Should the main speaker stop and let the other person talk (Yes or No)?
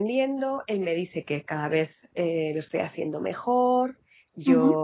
No